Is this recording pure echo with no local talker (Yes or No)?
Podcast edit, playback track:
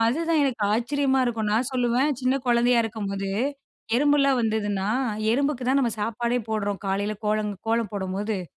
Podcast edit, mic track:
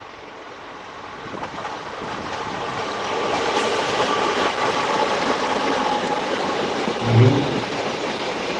No